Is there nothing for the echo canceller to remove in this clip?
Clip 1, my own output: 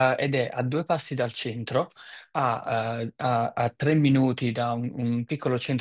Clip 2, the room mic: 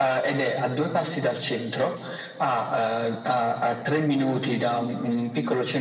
No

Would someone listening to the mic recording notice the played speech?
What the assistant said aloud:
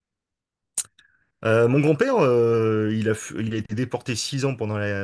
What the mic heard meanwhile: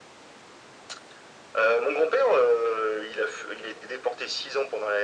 Yes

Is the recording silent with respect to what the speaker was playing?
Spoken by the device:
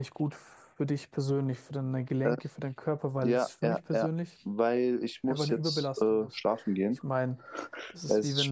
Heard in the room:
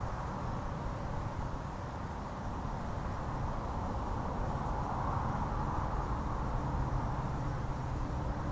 Yes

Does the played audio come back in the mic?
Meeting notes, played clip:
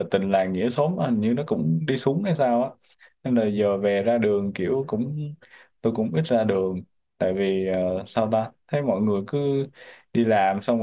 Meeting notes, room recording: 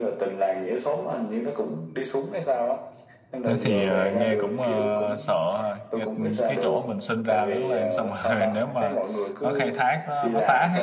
Yes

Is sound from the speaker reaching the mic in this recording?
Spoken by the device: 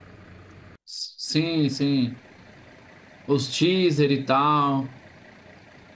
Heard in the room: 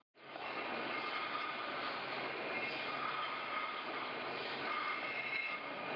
No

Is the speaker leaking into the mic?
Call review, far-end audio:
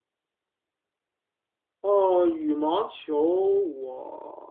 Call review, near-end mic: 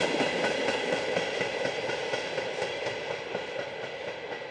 No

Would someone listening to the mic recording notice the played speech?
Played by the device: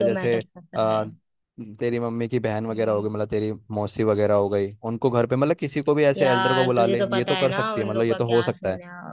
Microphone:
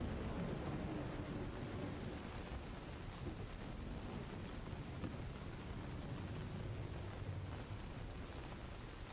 No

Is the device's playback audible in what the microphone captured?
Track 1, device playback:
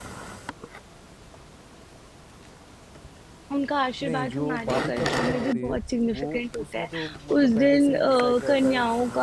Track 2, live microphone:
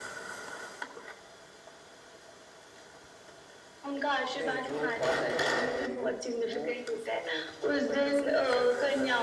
Yes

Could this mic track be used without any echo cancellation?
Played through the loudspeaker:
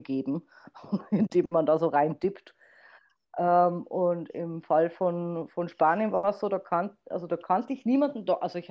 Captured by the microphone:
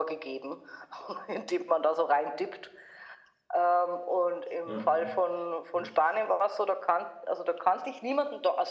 No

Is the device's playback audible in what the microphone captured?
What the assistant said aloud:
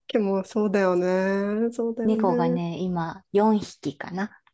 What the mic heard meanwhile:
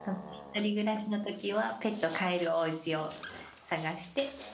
No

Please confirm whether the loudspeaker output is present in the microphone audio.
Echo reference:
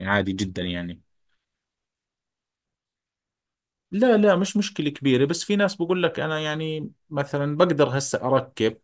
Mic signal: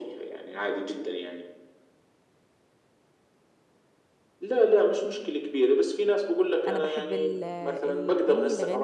Yes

